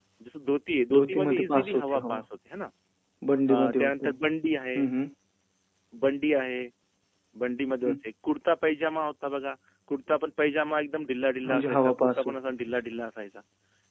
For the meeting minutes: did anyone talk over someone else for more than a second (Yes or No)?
Yes